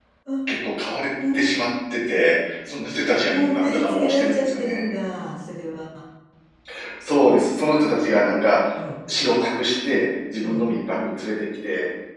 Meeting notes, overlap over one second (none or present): present